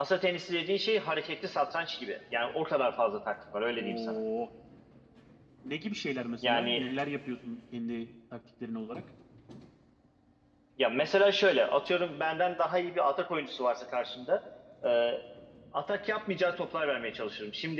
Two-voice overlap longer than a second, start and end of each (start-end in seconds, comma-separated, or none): none